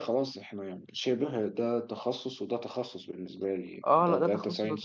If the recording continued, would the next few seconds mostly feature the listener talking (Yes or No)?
Yes